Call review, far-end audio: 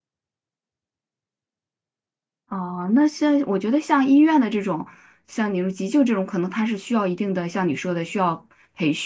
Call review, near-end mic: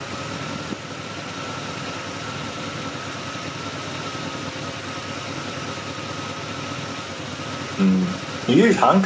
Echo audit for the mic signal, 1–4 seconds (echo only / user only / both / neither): neither